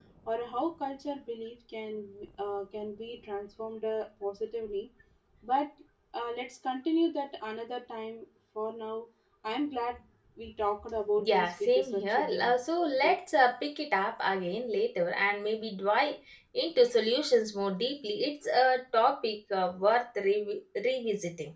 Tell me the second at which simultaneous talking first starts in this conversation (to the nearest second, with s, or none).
11 s